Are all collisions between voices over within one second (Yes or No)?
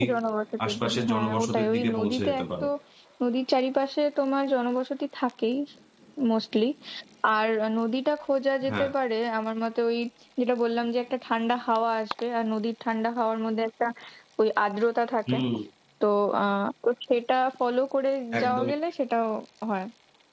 No